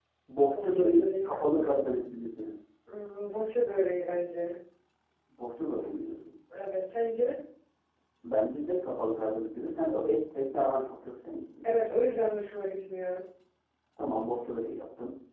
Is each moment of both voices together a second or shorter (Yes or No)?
No